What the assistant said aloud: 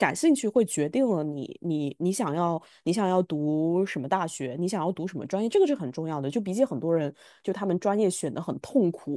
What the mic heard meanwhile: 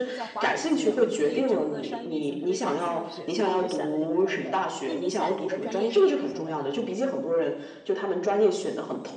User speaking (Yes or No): Yes